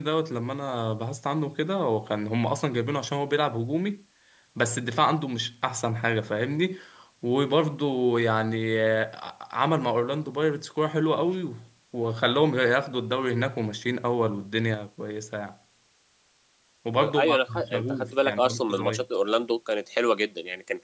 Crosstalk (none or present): present